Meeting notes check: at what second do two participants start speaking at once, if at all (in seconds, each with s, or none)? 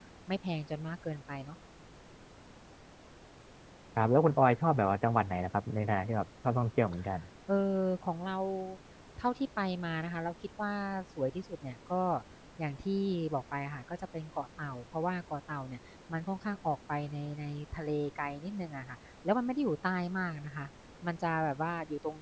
none